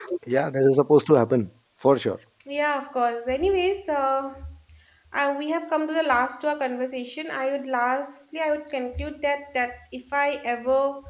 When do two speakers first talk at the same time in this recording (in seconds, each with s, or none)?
none